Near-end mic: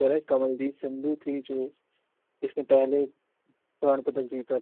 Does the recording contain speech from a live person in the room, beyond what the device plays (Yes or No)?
Yes